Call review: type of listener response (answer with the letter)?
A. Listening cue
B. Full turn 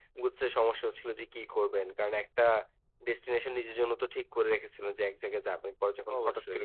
A